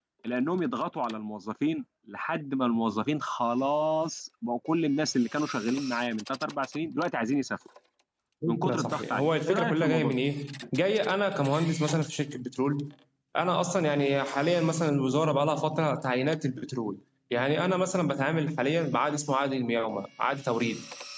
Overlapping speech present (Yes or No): Yes